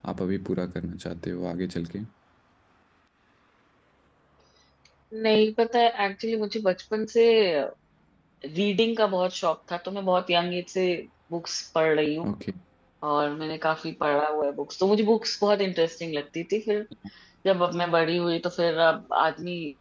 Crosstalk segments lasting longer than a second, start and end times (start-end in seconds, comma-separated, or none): none